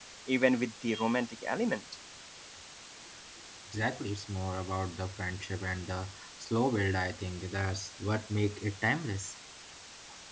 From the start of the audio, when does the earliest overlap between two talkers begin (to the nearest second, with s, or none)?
none